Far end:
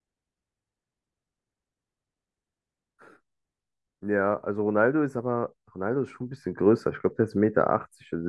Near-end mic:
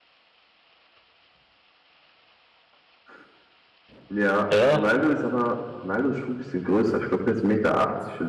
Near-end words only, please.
Ja,

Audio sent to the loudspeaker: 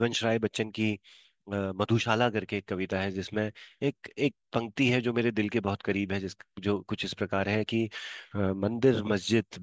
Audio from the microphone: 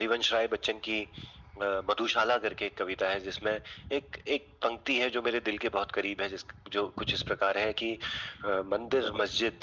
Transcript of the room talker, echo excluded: none

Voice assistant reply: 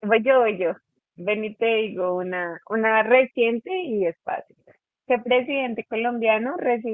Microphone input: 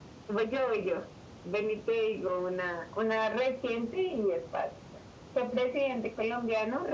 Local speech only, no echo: none

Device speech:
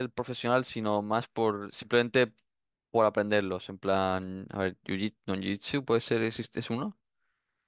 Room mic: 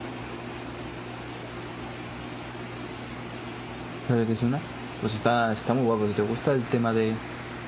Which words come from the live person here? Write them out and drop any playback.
es una. Pues está, está muy guapo. Si te gusta el tema de

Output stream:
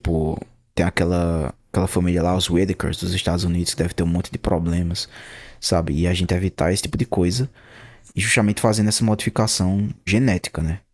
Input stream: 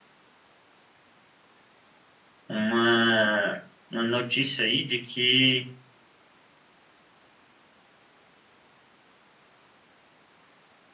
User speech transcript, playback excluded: uma, uma notícia aí de que

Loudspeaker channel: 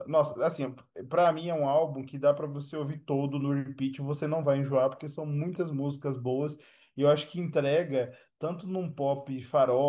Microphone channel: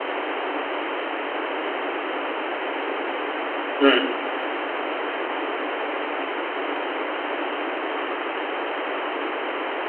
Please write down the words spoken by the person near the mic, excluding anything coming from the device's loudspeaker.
hum,

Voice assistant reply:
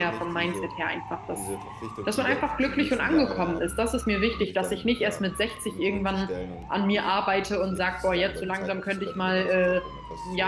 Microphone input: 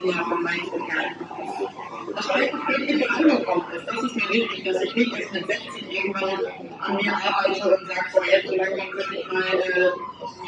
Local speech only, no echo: none

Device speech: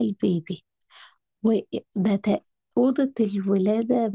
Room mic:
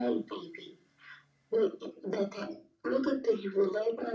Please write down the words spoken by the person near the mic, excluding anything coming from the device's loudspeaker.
none

